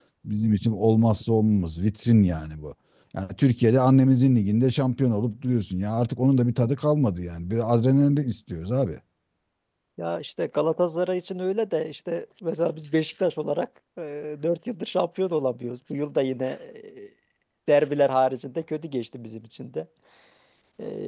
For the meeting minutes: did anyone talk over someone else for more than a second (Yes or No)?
No